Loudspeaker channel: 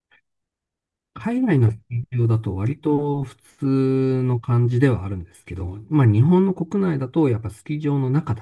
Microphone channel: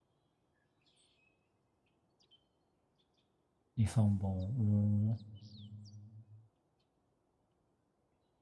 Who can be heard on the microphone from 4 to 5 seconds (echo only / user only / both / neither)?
user only